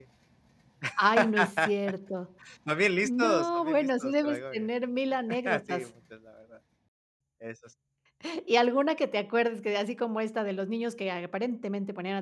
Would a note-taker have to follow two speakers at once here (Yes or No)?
Yes